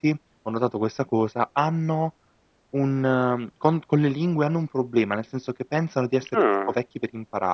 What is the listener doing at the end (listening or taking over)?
listening